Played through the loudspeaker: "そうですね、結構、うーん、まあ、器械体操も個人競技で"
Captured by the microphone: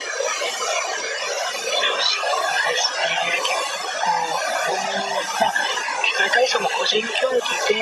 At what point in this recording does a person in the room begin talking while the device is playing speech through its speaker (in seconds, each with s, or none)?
none